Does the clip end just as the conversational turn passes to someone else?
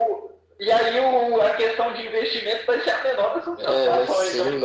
Yes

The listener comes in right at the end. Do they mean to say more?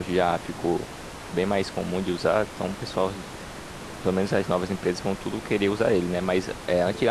No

